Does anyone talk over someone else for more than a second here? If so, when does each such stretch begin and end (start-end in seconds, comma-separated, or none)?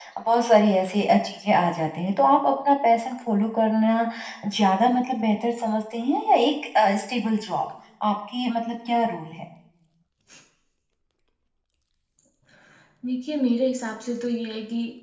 none